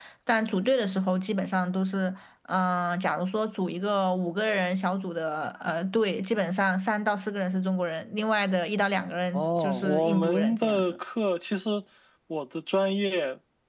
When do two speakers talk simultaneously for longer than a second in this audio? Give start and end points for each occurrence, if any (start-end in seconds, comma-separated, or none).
9.3-11.0